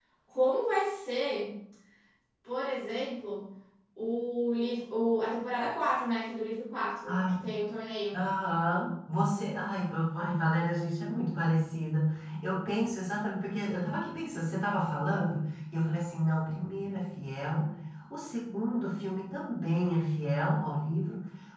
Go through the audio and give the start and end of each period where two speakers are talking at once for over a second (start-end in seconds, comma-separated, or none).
none